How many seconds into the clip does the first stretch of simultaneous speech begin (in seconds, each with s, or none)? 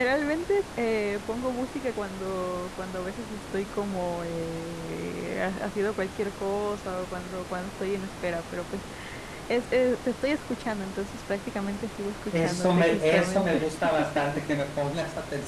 12.3 s